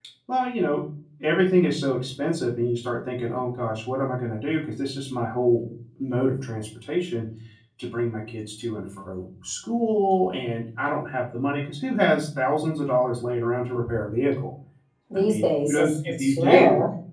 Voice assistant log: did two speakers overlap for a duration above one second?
Yes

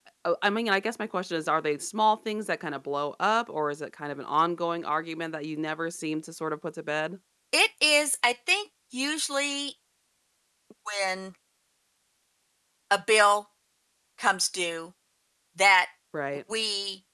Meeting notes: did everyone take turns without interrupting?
Yes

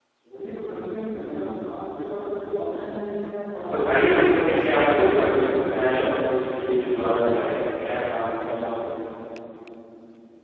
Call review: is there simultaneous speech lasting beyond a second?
Yes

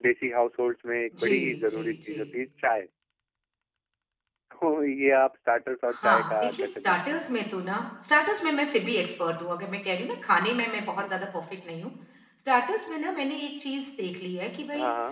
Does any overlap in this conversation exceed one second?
Yes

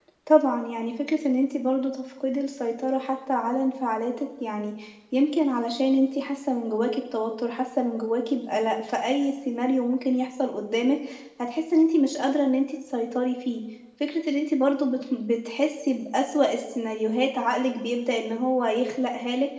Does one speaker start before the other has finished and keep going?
No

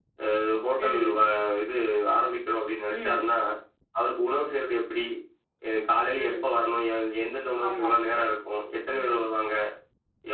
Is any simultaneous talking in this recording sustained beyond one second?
No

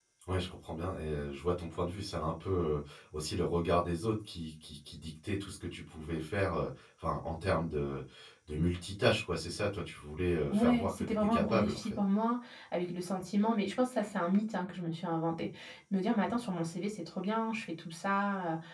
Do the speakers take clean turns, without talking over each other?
No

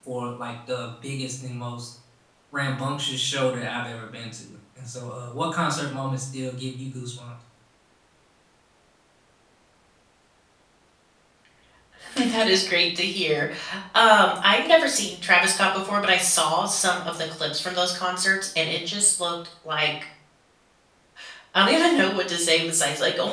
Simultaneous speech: No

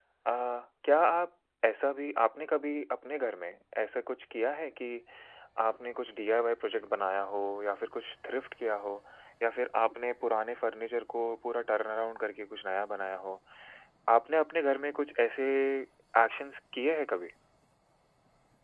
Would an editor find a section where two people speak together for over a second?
No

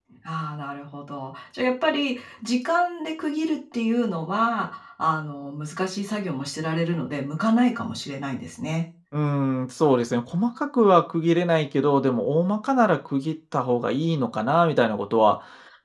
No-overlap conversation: Yes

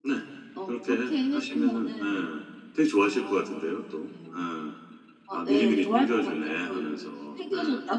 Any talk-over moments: Yes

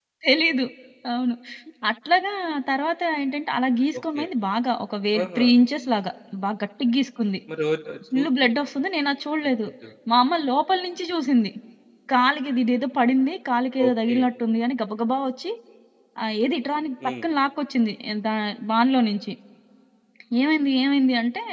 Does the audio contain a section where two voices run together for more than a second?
No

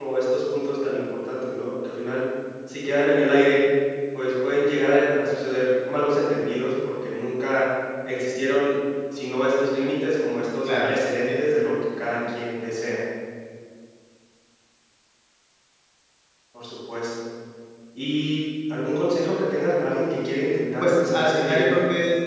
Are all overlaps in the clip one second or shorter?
No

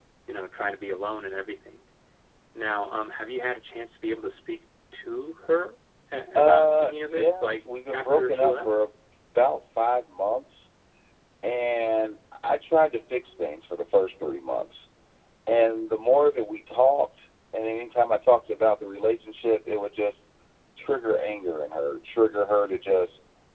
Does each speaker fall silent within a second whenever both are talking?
No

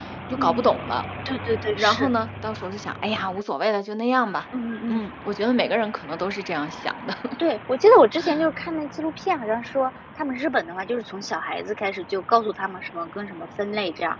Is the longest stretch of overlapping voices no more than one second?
Yes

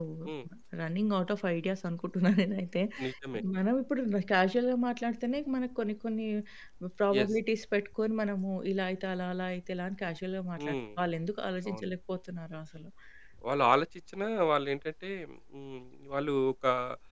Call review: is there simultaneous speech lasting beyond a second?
No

